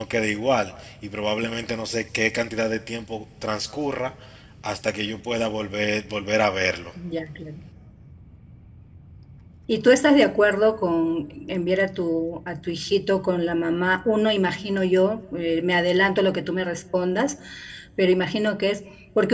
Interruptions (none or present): none